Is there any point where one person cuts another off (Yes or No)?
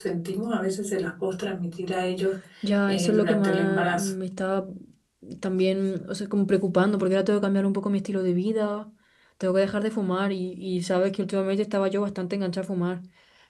Yes